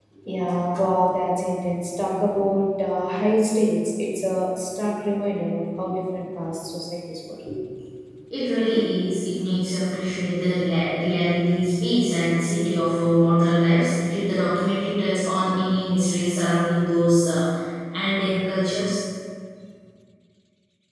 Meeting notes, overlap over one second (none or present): none